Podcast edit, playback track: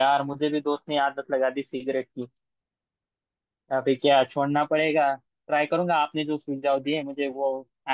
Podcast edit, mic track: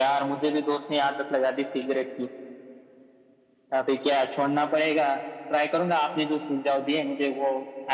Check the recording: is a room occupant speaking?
No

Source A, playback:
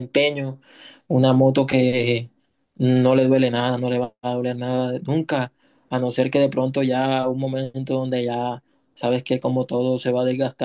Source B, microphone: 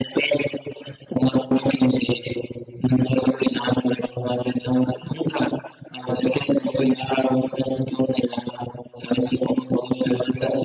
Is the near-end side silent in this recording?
Yes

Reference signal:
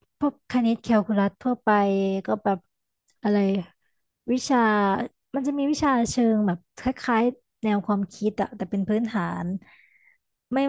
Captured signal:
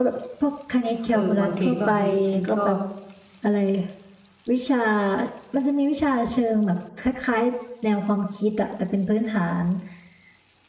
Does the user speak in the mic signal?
Yes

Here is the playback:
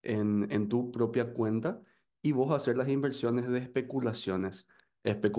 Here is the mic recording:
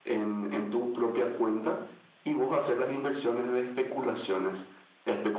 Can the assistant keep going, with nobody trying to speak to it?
Yes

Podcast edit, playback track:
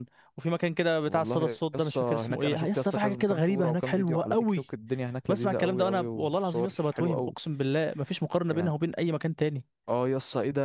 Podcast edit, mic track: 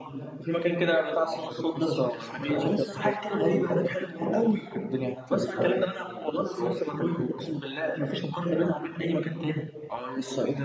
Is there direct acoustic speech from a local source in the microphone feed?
No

